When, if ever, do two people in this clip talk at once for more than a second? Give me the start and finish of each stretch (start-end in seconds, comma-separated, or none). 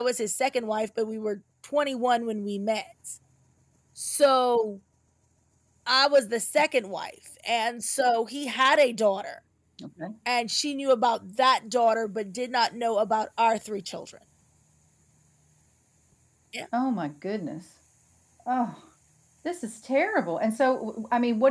none